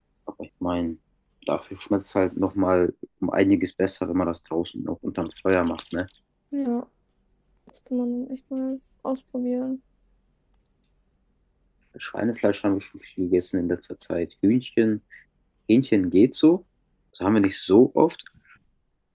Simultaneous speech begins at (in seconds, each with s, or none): none